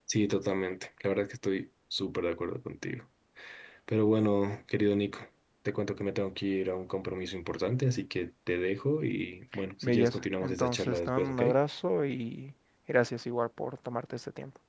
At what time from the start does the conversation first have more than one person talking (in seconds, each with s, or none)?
9.8 s